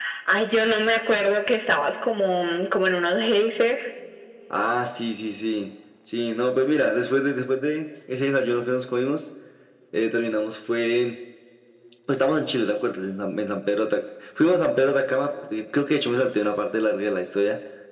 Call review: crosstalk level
none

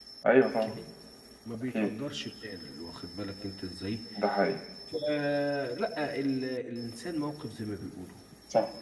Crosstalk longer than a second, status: none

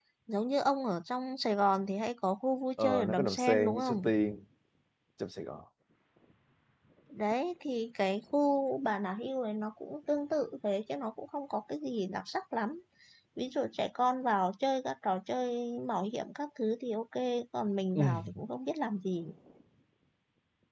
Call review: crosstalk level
present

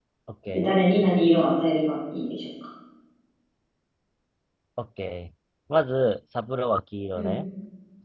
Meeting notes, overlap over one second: none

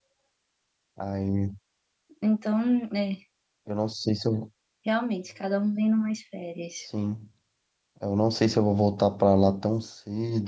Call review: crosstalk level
none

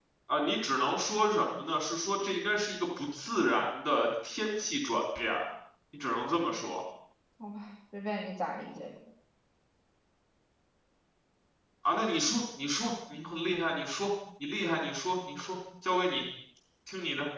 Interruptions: none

